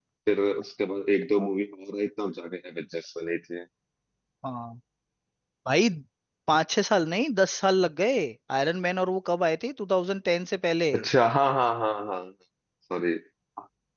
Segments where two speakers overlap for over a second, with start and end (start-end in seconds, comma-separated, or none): none